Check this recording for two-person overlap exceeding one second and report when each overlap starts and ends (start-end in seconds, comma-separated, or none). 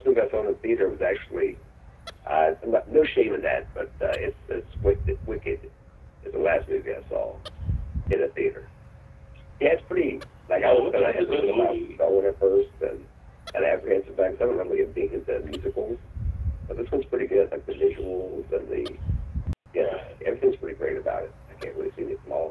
10.6-12.0